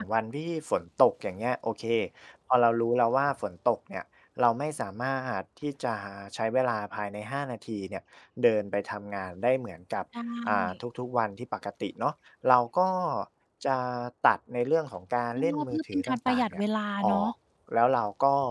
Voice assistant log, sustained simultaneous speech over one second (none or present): present